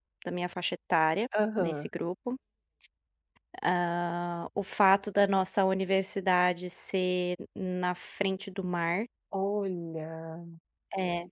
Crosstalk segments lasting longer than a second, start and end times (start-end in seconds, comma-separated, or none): none